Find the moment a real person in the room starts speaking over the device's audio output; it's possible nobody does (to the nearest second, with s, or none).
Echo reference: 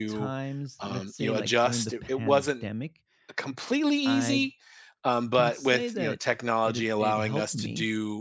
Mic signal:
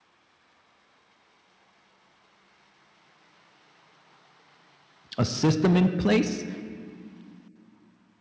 5 s